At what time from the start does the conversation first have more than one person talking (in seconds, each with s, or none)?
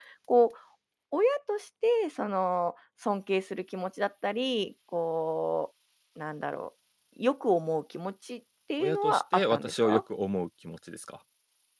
8.8 s